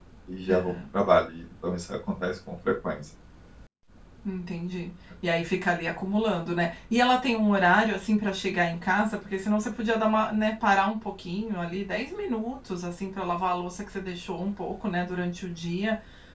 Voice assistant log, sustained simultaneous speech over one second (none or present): none